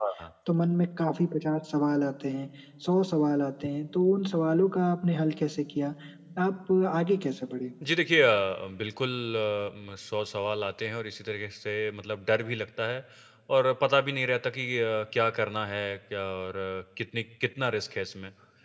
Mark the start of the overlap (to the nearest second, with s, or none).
none